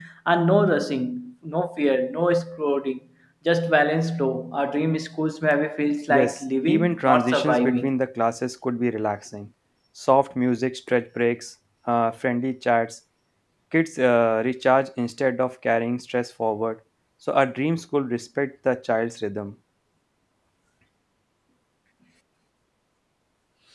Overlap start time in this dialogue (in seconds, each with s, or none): 6.1 s